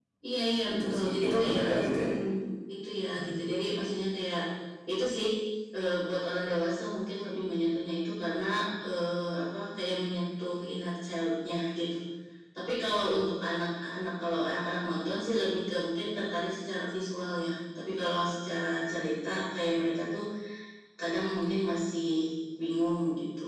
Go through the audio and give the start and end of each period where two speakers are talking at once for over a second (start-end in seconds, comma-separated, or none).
0.7-2.1